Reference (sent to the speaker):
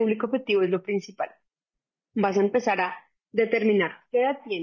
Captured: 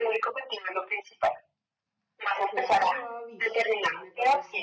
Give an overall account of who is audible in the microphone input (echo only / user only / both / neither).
both